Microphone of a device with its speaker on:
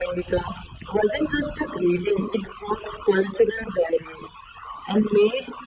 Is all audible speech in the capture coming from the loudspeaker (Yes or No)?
Yes